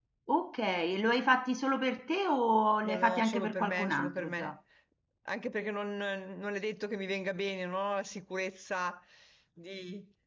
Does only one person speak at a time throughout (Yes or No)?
No